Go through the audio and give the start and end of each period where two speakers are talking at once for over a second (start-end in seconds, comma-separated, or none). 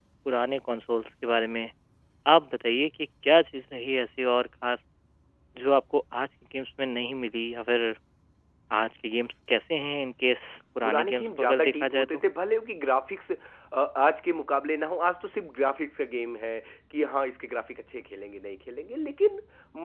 10.8-12.2